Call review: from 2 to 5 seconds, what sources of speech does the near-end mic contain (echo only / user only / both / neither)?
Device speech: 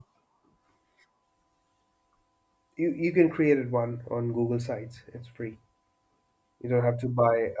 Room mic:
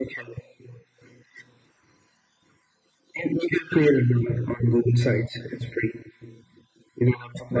echo only